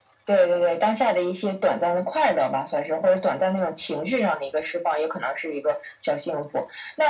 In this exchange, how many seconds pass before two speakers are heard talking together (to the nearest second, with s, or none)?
none